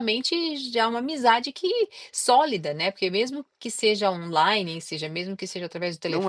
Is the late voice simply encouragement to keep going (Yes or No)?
No